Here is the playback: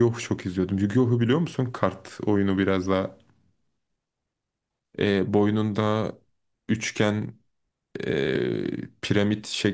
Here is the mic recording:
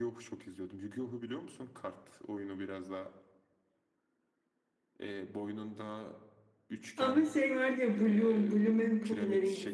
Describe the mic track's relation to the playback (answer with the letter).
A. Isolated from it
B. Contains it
B